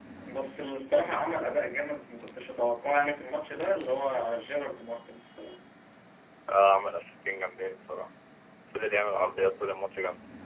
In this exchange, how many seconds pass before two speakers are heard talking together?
none

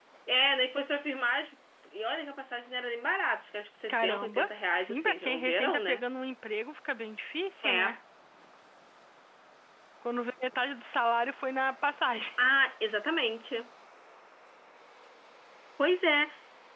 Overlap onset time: 3.9 s

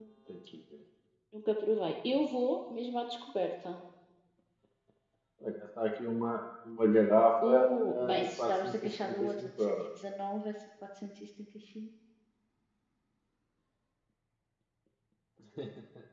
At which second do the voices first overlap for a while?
7.4 s

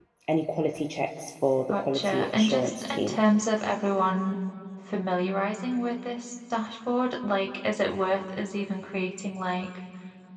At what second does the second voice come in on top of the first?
1.7 s

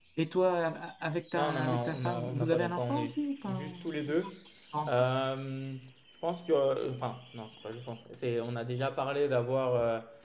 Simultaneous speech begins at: 1.3 s

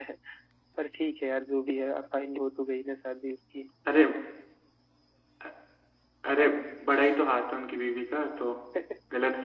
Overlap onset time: none

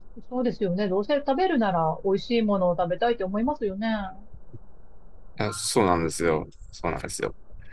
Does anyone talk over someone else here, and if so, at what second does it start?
none

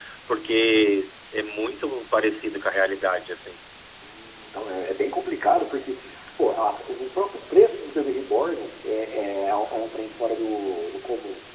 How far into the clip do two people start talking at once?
none

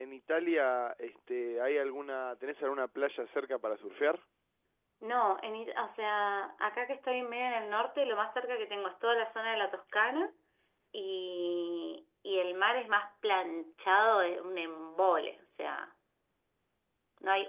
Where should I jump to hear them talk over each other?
none

